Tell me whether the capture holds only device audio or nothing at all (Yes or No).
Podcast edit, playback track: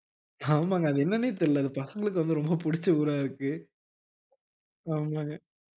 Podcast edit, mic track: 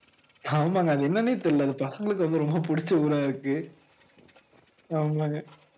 Yes